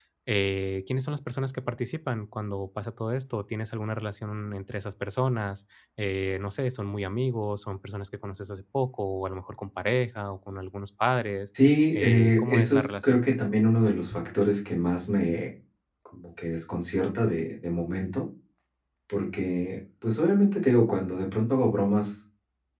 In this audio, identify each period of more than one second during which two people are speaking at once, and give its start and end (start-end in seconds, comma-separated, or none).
11.9-13.2